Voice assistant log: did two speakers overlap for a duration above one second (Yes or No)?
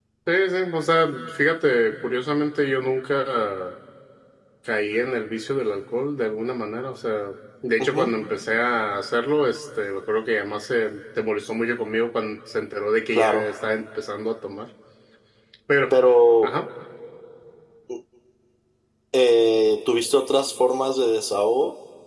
No